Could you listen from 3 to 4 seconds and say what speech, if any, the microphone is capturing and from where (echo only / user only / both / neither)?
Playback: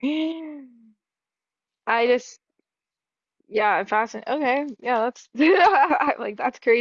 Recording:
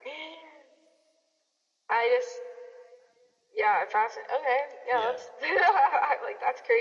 echo only